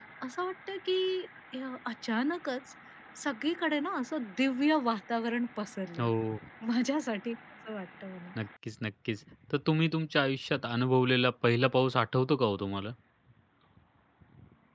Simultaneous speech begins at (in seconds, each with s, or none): none